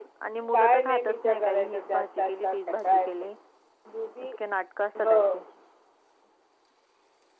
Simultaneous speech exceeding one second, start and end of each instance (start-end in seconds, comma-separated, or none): 0.5-3.1